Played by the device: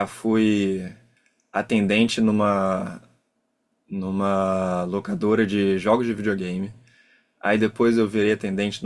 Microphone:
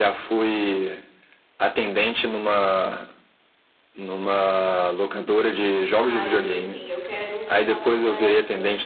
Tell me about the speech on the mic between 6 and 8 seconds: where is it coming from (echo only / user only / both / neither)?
both